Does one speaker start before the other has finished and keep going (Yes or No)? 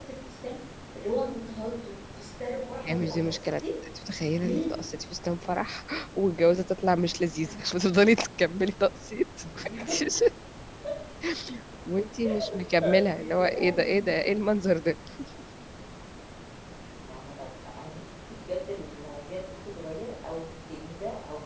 Yes